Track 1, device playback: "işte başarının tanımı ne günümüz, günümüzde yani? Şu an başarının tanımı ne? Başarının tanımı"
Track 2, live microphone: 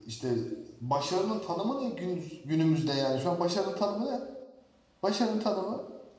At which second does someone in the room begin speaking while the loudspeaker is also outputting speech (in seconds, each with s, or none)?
none